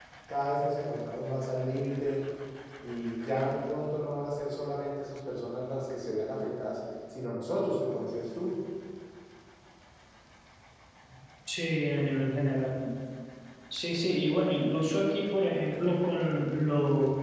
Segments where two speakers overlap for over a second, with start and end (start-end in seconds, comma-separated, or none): none